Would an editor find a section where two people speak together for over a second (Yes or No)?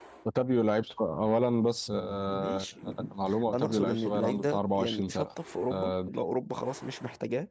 Yes